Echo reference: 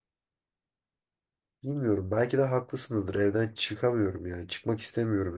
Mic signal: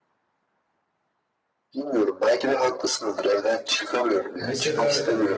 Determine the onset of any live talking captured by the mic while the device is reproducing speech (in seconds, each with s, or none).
4.4 s